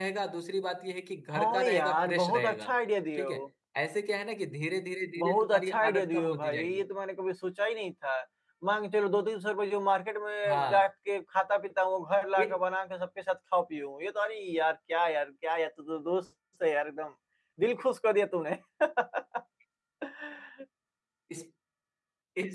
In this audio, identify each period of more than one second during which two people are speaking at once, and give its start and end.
1.3-2.7, 5.2-6.8

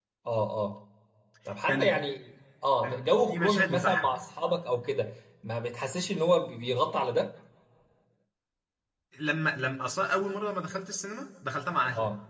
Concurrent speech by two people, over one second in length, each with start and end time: 2.8-4.1

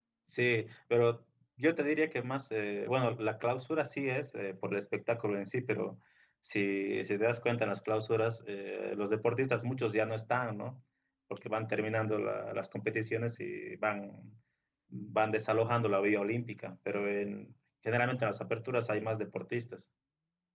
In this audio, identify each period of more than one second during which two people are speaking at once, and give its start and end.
none

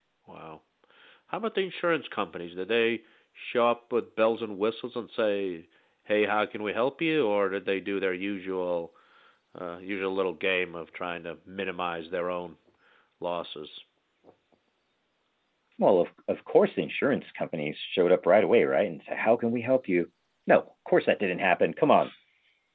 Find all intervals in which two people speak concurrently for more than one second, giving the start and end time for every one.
none

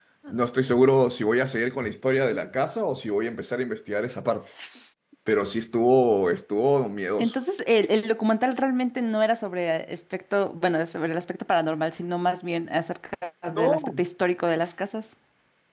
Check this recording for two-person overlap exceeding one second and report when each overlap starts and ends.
none

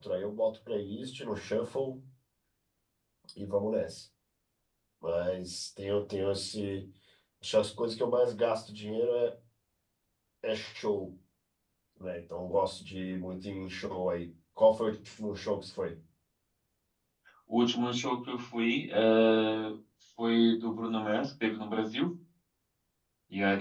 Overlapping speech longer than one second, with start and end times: none

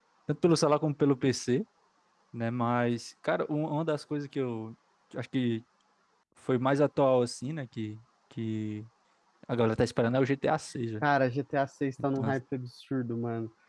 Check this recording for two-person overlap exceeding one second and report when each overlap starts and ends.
none

